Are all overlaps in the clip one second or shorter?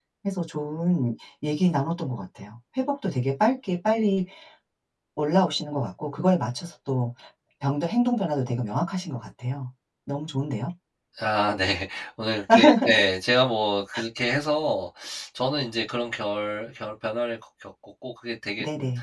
Yes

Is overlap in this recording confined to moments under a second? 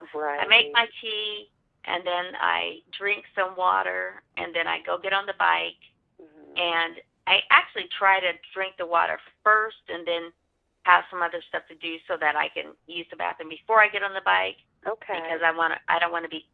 Yes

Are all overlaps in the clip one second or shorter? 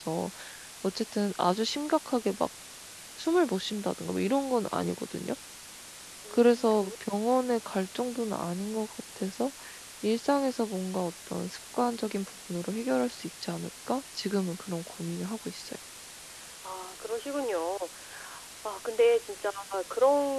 No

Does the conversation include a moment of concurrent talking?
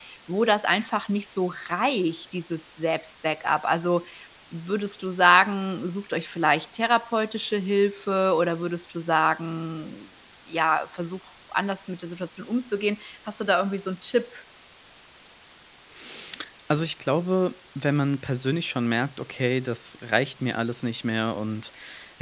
No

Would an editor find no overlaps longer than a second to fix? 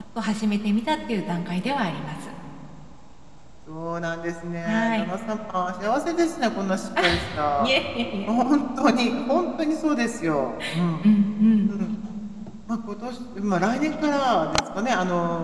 Yes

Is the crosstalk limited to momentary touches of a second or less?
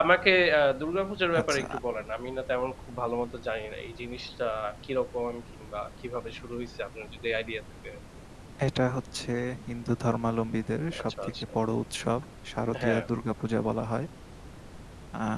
Yes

